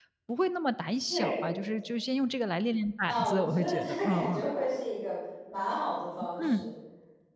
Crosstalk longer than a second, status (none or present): present